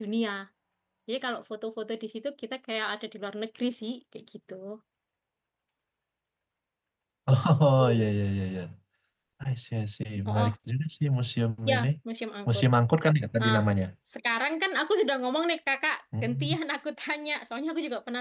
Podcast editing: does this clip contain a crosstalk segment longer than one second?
No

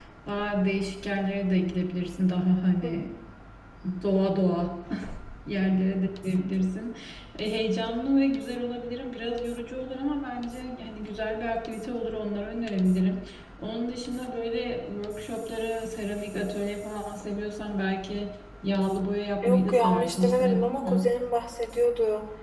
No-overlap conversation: No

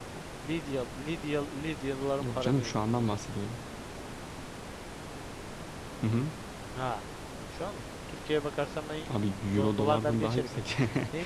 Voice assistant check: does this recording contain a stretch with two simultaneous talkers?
Yes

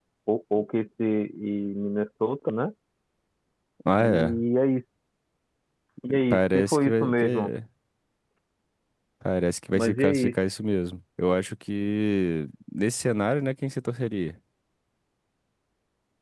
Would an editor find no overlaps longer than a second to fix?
No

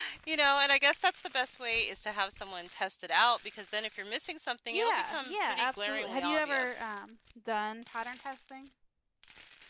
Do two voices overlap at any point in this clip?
Yes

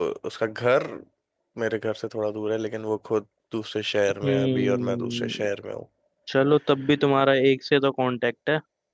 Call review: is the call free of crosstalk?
No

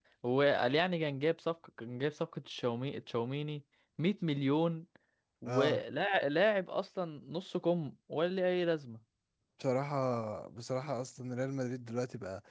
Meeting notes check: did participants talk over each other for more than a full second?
No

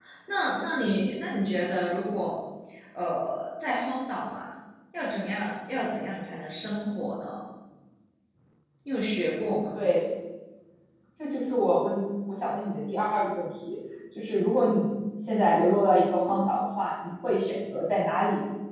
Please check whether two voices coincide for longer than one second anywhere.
No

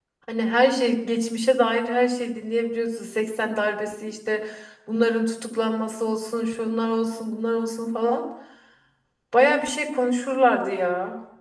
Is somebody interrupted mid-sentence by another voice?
No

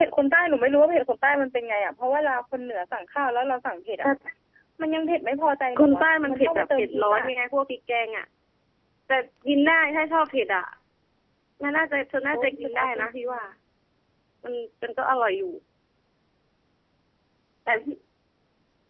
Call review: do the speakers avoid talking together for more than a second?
No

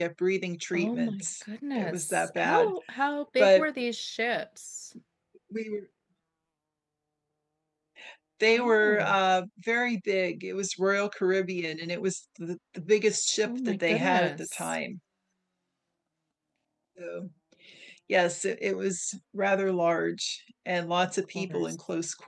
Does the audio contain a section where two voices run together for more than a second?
Yes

